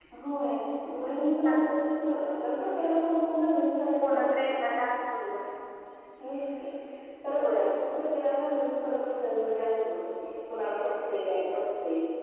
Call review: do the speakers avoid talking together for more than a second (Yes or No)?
Yes